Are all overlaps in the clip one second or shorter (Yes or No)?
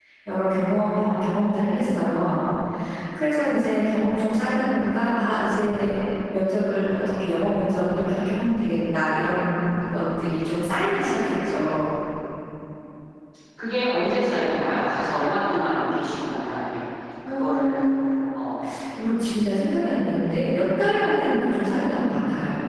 Yes